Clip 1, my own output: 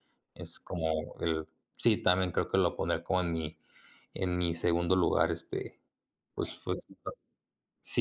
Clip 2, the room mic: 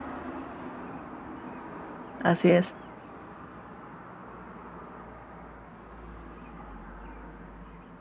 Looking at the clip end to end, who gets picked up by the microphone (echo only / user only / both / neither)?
user only